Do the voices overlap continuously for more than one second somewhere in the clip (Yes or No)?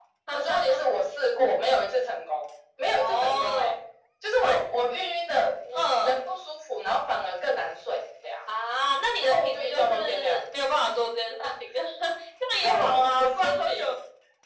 Yes